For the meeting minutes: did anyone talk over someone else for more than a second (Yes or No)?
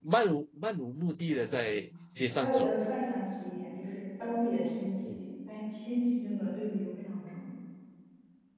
No